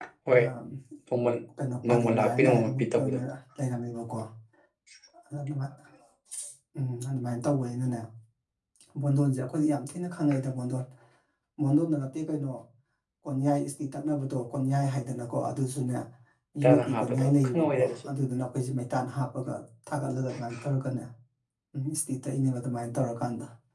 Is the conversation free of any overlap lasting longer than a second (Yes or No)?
No